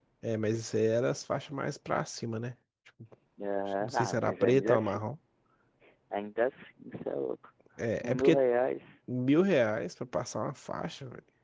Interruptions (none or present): present